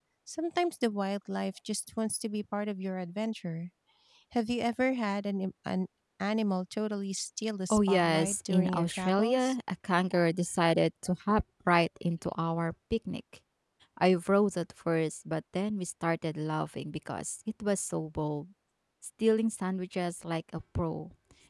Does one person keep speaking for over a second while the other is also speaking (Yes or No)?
Yes